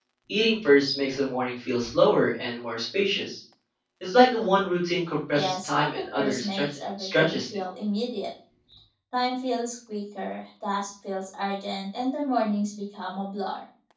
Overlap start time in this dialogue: 5.3 s

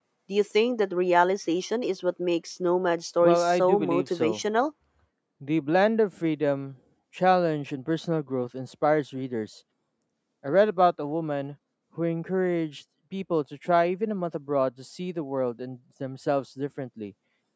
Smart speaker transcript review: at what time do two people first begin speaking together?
3.2 s

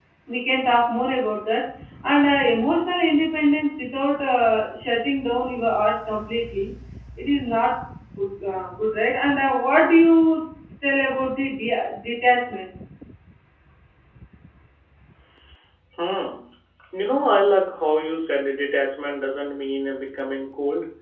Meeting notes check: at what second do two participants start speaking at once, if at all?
none

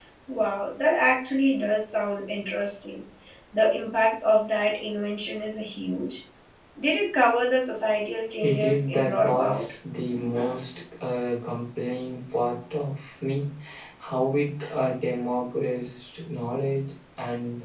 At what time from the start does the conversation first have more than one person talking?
8.4 s

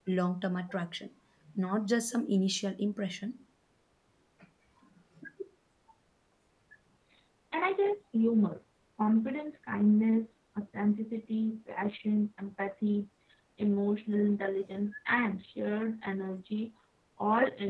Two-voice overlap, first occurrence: none

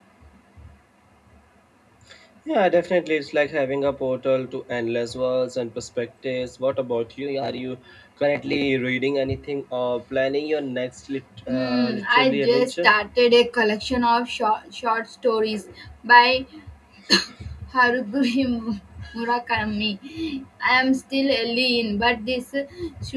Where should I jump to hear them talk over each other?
11.4 s

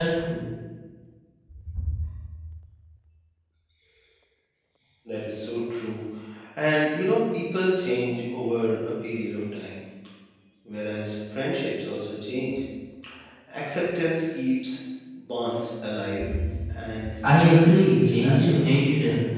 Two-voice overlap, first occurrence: 17.4 s

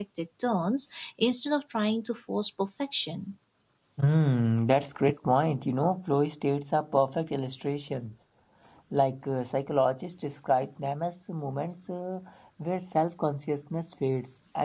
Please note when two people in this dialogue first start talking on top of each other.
none

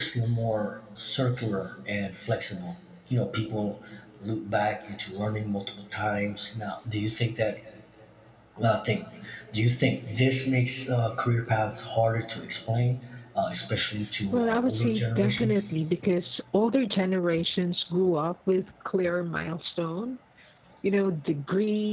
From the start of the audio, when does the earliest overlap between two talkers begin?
14.3 s

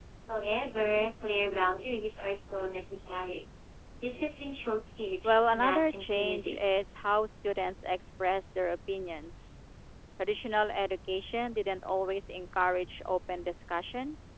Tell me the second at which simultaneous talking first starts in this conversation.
5.2 s

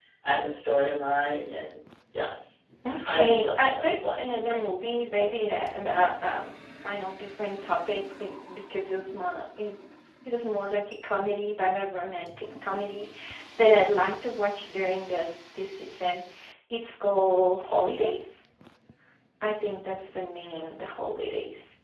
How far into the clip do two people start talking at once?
3.1 s

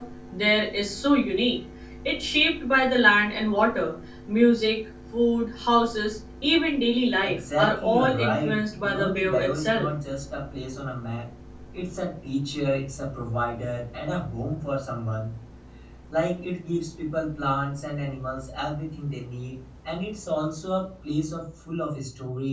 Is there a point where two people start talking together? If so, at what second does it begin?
7.2 s

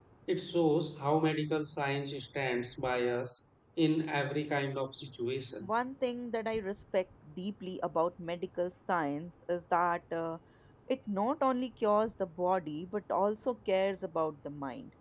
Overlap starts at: none

